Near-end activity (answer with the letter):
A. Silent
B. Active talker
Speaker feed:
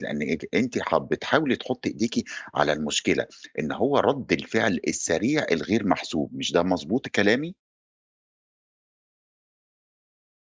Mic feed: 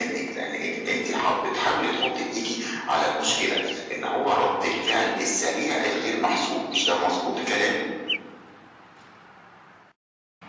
A